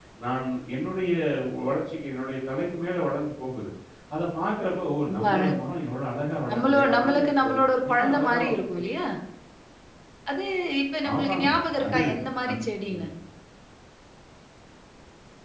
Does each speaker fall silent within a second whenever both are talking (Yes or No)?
No